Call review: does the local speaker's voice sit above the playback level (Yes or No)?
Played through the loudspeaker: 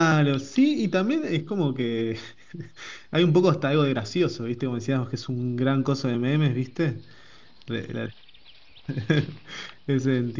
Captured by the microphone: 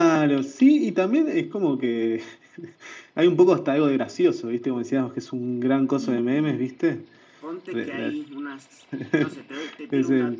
No